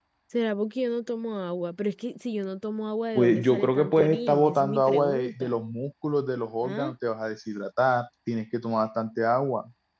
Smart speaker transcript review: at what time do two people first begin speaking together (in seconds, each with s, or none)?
3.2 s